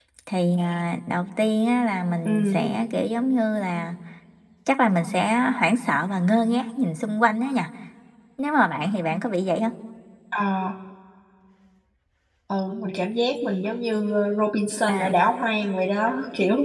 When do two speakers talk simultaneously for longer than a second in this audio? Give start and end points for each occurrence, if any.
none

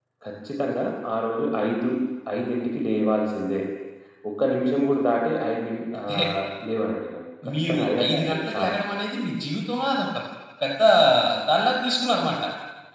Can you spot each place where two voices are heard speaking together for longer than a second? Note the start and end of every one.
7.5-8.7

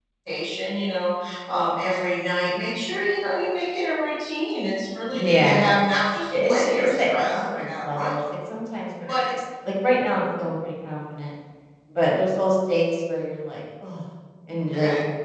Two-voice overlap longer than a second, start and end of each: 6.3-8.1

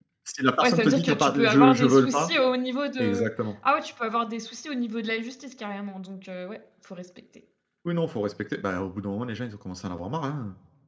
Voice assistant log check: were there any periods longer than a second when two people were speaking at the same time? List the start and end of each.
0.6-2.3

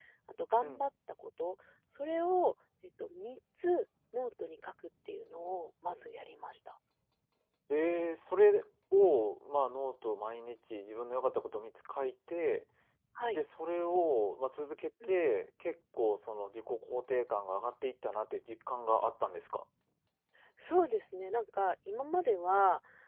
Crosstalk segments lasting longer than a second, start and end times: none

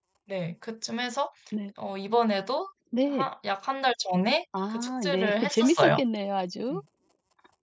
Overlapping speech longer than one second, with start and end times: 4.7-6.0

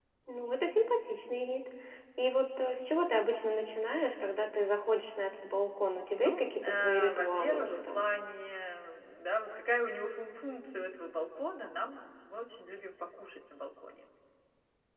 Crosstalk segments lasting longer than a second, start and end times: 6.1-8.1

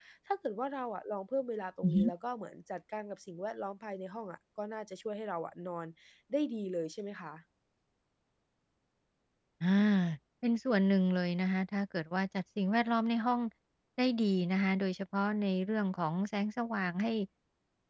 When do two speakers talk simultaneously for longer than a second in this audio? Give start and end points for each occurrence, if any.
none

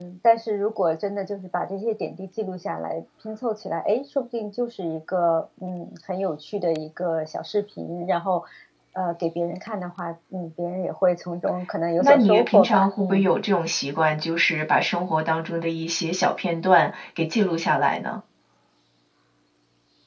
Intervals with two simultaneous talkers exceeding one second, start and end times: 12.0-13.3

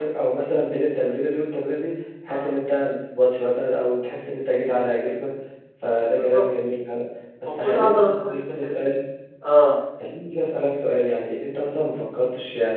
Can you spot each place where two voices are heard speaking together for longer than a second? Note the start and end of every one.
7.4-8.8

